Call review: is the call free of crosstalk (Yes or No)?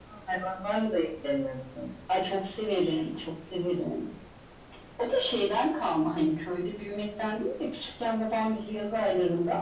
Yes